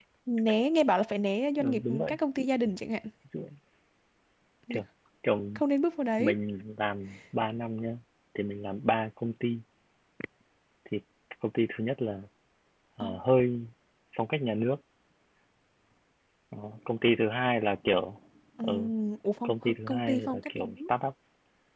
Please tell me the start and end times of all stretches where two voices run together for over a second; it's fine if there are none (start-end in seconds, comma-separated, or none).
19.4-20.9